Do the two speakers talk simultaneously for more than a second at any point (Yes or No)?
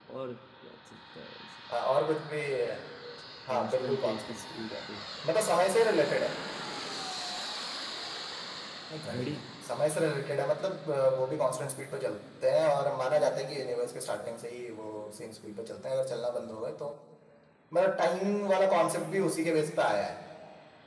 Yes